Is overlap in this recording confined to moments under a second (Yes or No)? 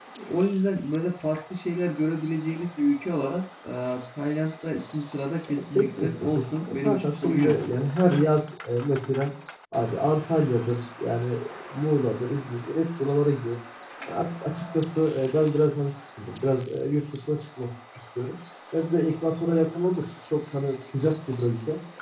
No